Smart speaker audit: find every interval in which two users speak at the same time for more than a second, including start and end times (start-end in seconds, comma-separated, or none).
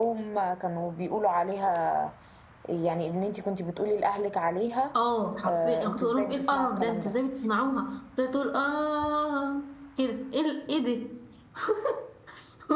5.5-7.1